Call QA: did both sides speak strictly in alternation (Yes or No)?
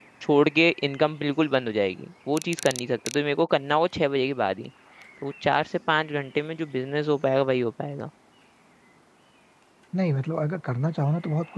Yes